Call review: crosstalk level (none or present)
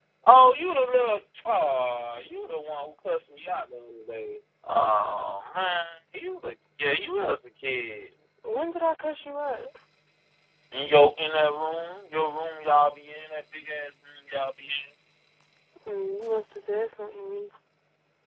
none